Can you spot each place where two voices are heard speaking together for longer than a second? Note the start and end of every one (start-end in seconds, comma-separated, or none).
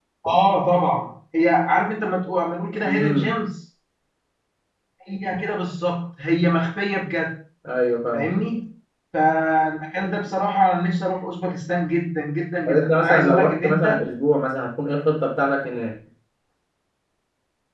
12.7-14.0